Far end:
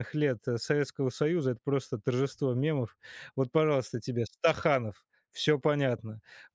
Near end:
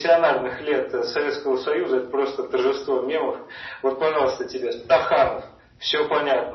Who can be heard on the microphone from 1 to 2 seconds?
echo only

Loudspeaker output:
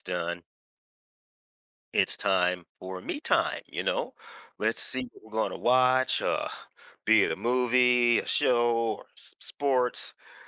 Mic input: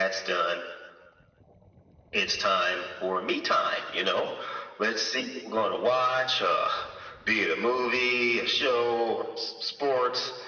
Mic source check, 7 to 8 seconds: echo only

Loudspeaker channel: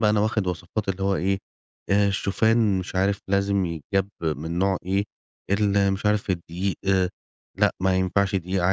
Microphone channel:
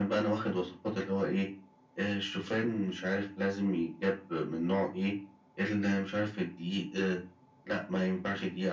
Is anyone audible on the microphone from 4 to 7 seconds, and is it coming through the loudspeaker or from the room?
echo only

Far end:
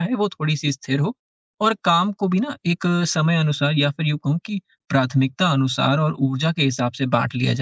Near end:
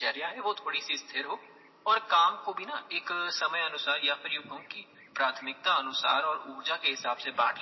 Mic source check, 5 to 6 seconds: echo only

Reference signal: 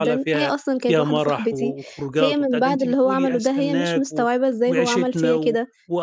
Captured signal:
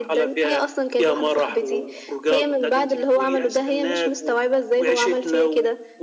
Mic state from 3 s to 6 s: echo only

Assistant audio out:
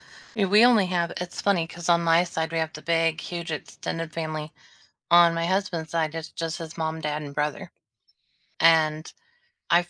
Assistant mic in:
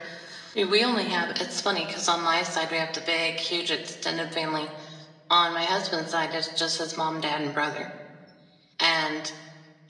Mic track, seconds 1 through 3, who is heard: echo only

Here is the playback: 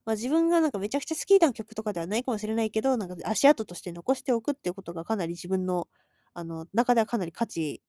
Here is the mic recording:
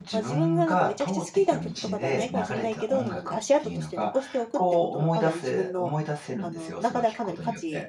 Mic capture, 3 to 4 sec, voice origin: both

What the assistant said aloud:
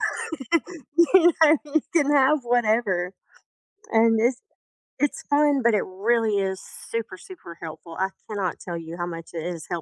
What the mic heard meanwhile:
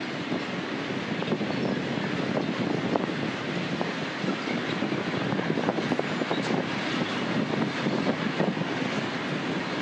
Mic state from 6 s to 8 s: neither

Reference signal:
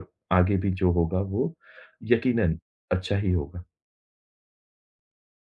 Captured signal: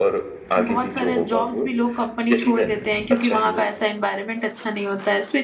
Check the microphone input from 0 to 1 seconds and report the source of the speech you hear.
both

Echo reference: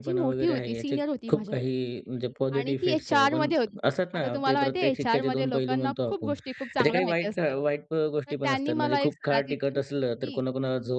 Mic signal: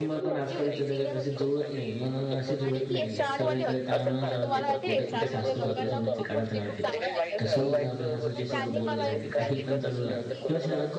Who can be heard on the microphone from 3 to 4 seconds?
both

